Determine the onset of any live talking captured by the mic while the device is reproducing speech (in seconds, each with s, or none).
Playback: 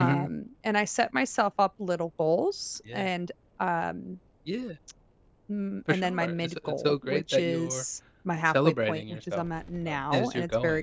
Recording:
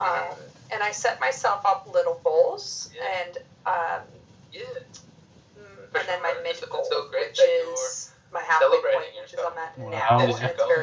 9.8 s